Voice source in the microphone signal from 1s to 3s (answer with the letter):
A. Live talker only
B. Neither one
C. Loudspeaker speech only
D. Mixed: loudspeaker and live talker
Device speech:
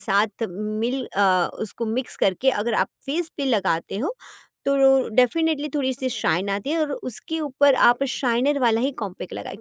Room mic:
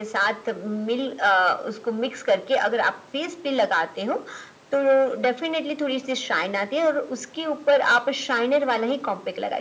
C